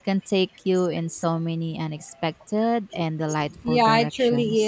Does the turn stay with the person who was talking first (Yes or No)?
No